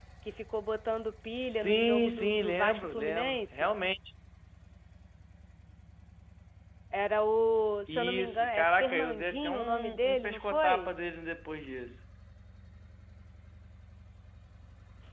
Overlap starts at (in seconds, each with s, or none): 1.4 s